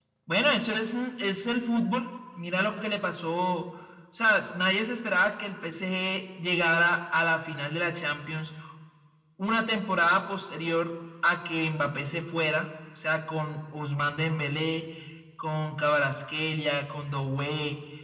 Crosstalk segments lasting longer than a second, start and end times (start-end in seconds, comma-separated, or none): none